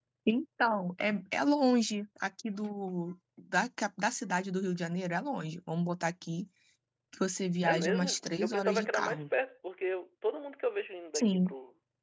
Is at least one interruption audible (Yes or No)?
Yes